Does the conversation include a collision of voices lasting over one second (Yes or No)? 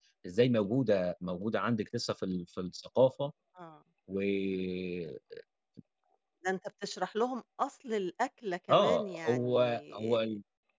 Yes